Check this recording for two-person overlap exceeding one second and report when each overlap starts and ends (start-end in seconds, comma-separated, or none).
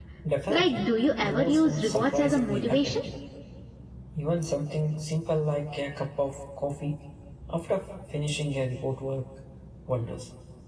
1.2-3.0